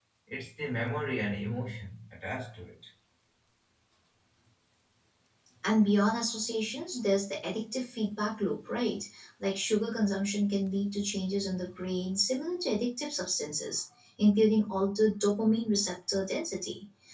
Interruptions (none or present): none